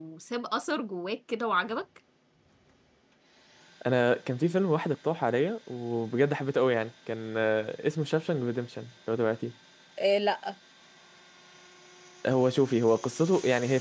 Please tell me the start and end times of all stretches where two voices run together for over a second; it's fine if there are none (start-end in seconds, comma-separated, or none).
none